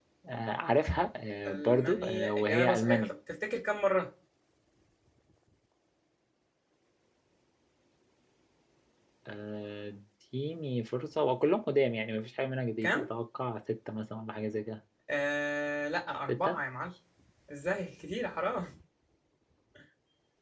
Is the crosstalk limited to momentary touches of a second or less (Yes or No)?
No